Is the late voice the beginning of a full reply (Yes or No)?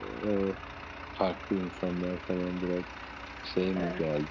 Yes